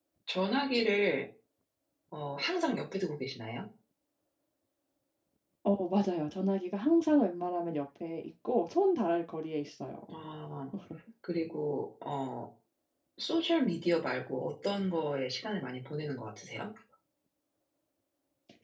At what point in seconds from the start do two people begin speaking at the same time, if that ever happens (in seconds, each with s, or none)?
none